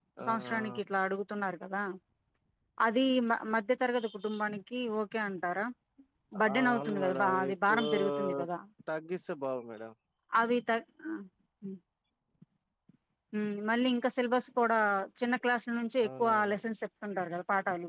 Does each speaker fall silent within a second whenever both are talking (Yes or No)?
No